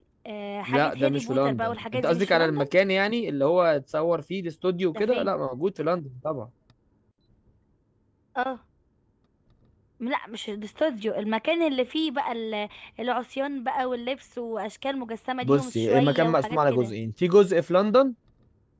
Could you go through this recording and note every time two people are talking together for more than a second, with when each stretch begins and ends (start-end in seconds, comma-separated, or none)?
0.7-2.7, 15.4-16.9